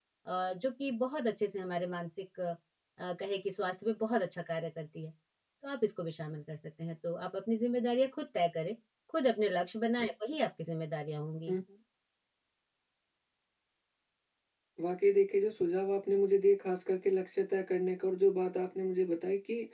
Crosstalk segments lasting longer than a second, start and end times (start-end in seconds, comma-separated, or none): none